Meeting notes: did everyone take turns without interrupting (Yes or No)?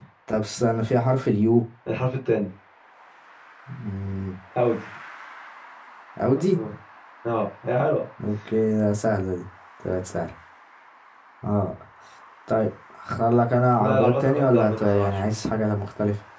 No